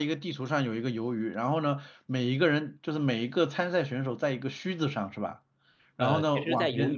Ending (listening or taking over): taking over